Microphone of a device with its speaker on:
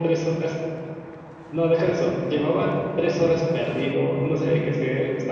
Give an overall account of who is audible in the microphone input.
echo only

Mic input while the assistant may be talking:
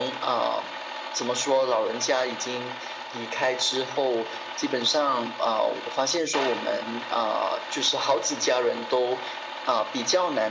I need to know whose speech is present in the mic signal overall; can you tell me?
echo only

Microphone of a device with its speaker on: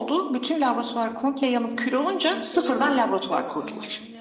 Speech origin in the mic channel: both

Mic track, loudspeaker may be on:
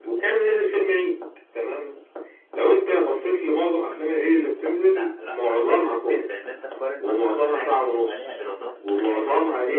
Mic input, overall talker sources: both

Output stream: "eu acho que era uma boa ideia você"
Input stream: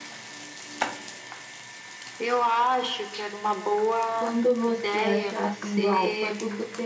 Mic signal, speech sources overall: both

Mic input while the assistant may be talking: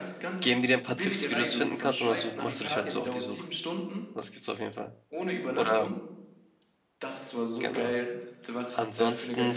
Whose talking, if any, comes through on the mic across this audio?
both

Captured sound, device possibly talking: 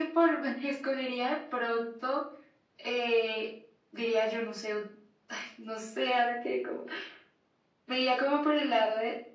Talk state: echo only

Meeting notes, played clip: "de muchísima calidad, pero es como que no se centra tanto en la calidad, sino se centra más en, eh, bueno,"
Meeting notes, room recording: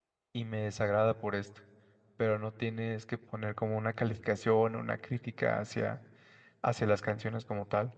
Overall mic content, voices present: user only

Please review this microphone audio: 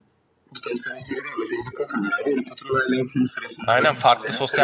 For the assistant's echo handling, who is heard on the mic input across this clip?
both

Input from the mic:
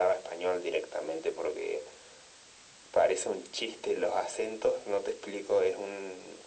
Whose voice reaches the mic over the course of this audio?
echo only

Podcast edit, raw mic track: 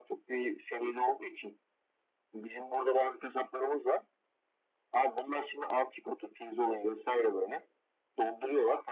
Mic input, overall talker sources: echo only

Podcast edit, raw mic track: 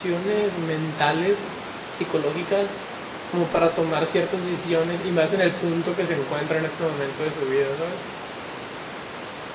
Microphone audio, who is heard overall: user only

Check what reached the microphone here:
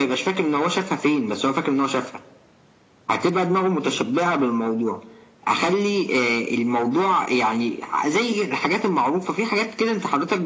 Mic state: echo only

